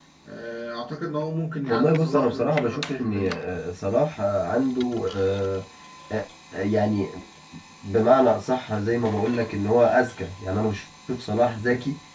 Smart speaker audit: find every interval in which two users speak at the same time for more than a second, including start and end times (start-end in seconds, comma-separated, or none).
1.7-3.4